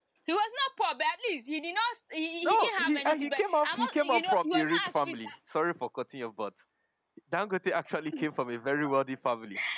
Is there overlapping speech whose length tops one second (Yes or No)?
Yes